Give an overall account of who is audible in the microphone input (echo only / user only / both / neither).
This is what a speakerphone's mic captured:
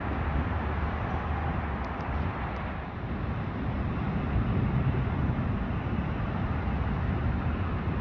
neither